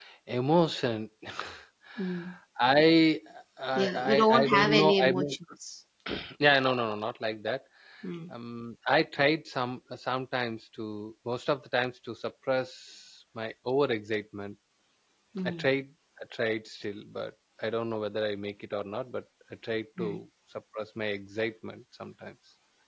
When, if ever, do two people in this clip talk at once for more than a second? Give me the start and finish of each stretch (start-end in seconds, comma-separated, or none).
3.8-5.4